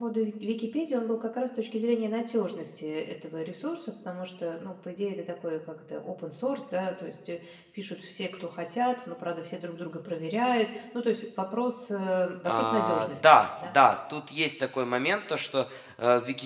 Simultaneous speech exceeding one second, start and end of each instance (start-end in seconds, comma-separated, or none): 12.5-13.8